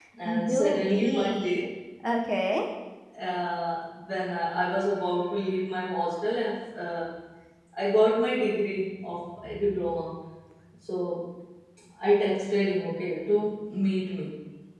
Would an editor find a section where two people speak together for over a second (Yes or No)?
Yes